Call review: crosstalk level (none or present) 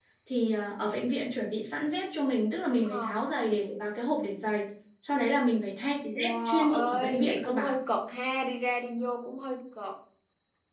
present